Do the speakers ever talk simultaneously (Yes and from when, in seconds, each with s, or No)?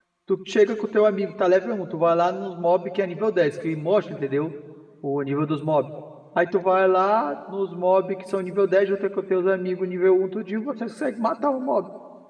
No